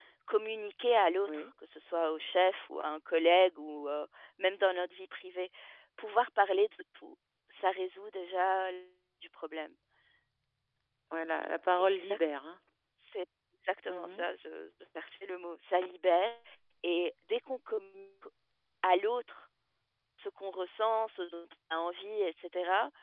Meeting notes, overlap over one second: none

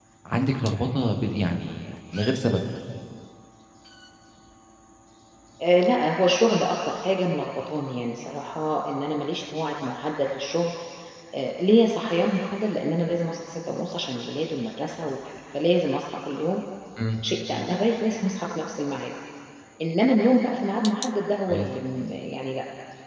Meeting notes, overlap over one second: none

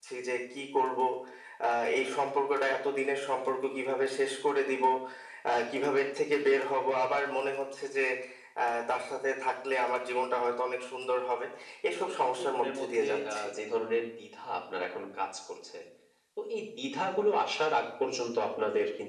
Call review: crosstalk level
present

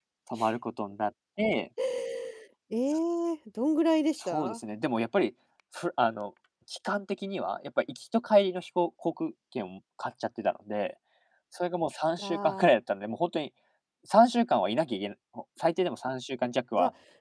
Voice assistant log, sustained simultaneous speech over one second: none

